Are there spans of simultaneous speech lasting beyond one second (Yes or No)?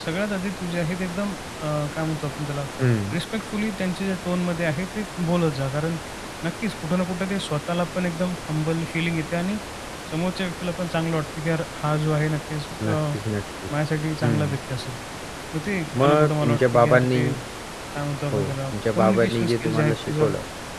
Yes